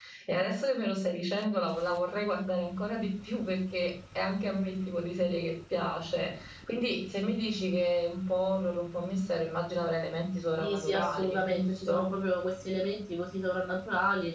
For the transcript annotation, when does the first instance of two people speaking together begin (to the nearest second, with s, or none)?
11 s